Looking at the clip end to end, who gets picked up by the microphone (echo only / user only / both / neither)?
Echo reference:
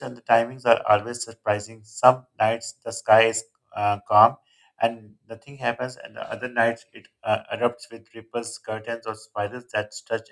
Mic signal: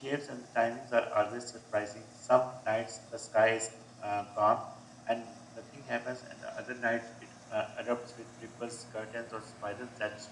echo only